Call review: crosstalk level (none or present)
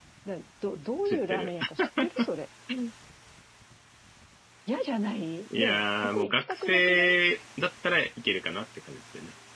present